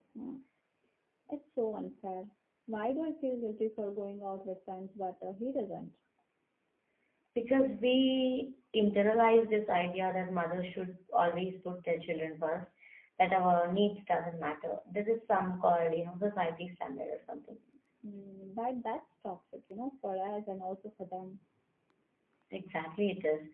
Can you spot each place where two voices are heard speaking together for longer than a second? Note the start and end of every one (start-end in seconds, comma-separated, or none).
none